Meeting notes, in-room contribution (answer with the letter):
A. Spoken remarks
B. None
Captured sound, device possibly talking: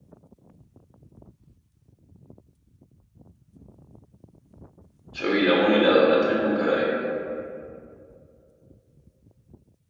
A